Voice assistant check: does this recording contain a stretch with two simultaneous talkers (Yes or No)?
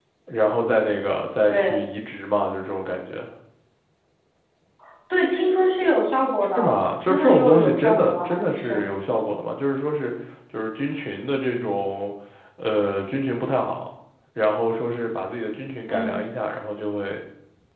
Yes